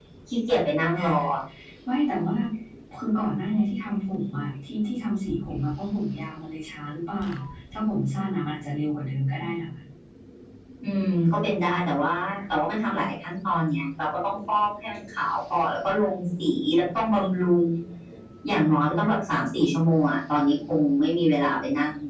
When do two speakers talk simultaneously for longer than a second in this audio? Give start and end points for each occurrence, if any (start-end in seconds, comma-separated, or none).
none